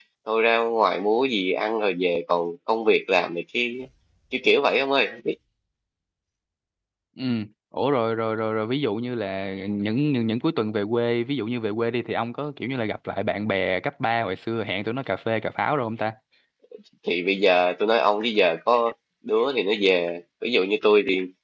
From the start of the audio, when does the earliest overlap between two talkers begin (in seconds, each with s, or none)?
none